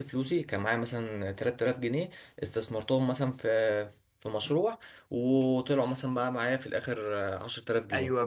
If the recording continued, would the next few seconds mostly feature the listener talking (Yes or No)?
Yes